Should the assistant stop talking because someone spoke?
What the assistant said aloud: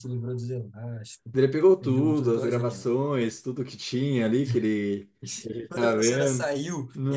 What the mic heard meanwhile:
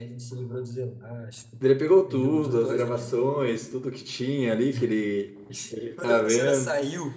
No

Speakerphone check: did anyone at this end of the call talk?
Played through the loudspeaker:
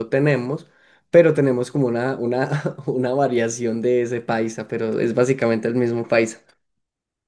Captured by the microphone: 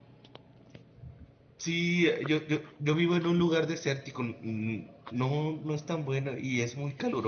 Yes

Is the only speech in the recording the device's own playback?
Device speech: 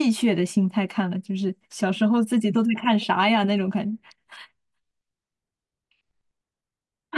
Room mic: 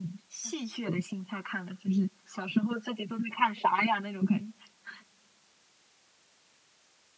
Yes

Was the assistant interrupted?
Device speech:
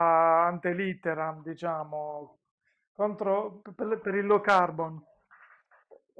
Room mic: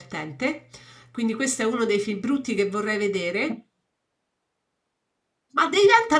Yes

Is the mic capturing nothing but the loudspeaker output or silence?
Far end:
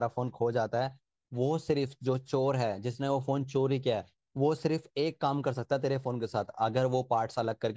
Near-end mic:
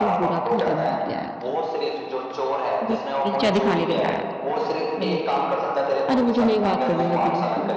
No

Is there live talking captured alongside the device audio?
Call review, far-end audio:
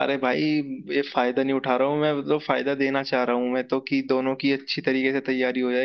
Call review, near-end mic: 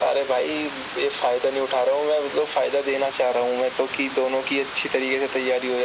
No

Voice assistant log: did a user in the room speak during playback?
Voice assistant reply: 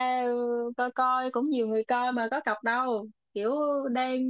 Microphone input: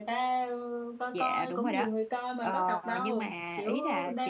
Yes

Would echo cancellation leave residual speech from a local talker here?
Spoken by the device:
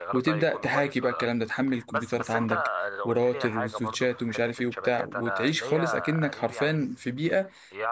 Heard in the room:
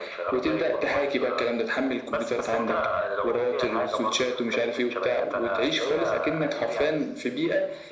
No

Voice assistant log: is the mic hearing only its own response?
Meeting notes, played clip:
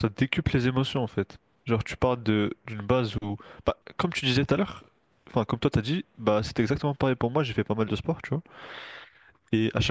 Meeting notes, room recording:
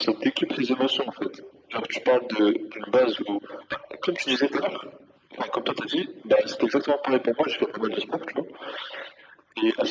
Yes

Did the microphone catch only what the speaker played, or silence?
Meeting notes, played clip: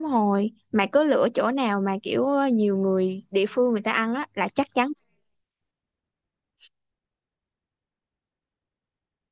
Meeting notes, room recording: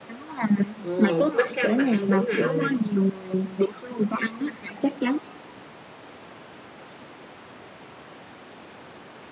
No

